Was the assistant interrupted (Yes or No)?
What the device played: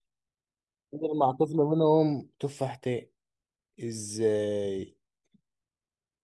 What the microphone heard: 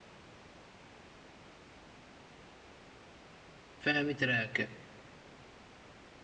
Yes